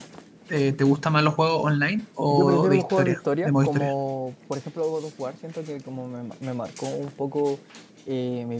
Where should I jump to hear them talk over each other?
2 s

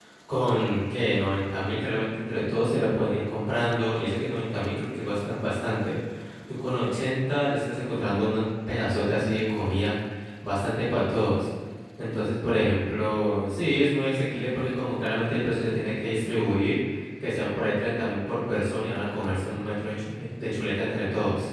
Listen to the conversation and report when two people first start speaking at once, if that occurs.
none

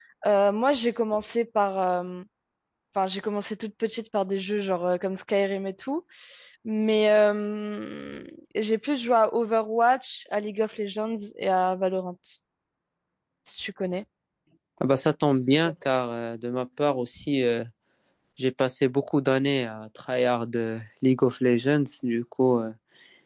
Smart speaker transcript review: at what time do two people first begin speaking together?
none

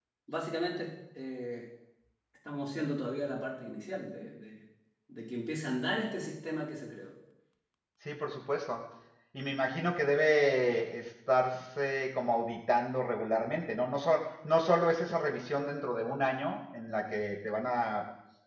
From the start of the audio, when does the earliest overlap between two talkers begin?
none

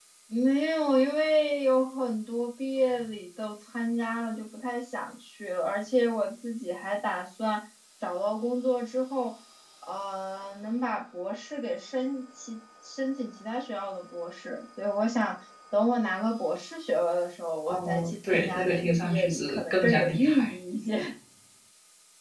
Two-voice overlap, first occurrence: 18 s

